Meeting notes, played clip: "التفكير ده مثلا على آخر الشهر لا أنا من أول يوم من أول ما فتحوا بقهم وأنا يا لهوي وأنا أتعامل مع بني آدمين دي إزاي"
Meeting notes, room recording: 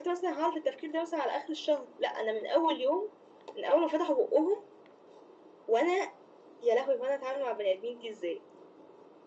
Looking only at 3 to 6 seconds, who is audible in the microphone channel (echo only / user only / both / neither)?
echo only